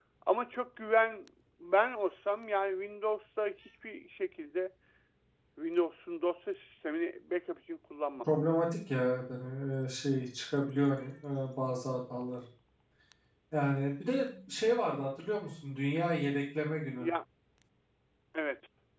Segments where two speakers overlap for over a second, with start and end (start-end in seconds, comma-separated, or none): none